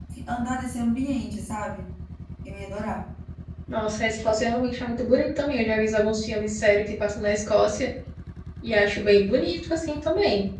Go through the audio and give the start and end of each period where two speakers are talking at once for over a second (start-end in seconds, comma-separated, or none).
none